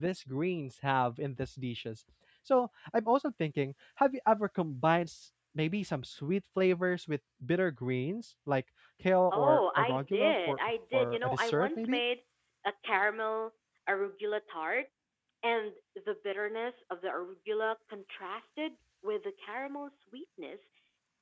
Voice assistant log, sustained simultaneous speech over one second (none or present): present